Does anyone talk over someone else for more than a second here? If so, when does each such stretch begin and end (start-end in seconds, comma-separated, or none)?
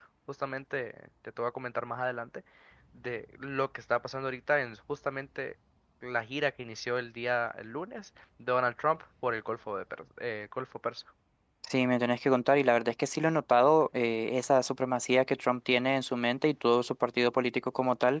none